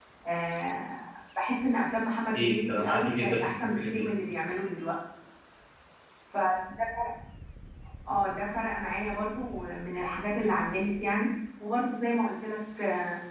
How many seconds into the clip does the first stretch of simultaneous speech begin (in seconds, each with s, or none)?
2.4 s